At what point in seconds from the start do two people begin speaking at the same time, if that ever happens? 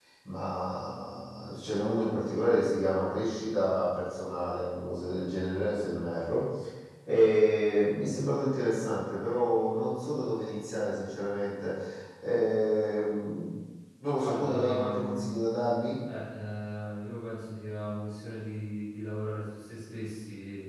14 s

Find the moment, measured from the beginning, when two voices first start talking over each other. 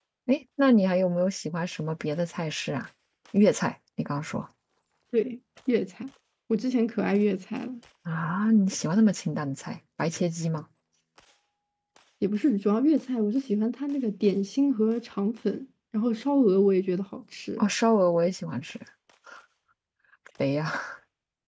none

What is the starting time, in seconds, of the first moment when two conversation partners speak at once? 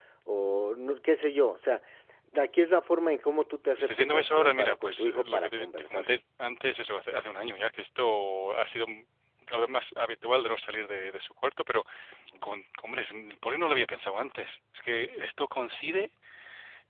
4 s

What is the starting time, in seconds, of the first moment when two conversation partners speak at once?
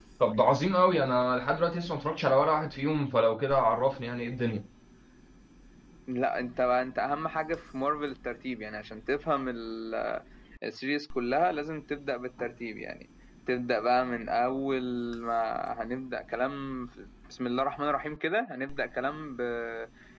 none

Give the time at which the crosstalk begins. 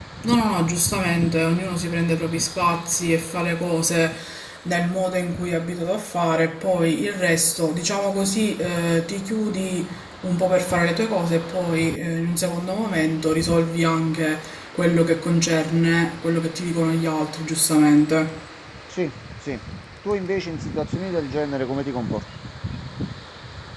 none

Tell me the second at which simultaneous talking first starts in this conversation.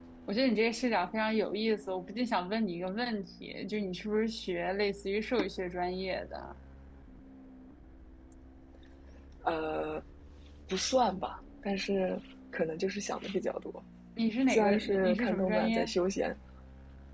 14 s

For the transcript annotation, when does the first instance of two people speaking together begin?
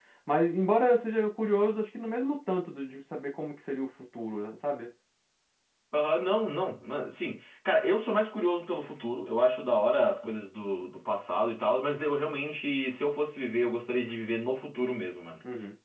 none

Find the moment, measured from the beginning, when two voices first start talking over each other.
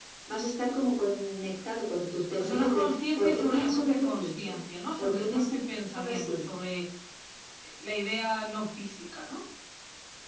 2 s

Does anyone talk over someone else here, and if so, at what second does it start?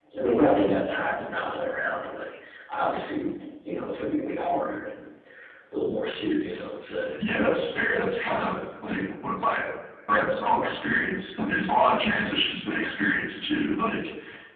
none

